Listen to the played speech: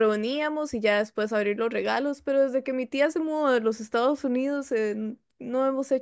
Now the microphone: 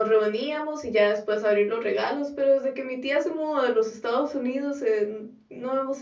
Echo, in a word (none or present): present